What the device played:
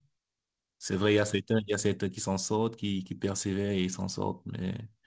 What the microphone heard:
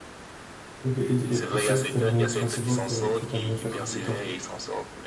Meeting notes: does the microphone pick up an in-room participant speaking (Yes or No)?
Yes